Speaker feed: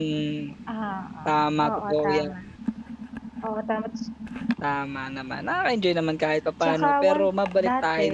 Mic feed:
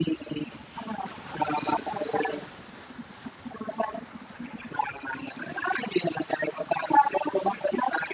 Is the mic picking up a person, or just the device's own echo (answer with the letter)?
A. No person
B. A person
A